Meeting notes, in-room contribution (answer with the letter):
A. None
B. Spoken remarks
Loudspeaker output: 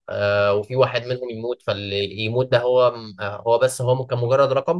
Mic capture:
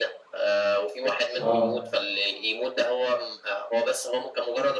B